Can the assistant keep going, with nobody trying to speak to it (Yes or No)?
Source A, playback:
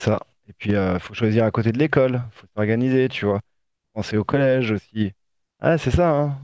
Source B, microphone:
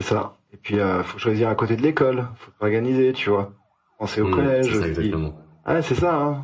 No